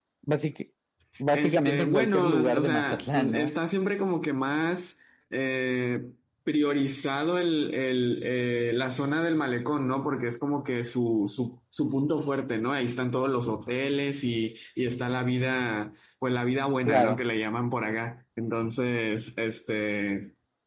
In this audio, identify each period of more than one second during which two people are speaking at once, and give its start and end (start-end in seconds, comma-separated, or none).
1.3-3.5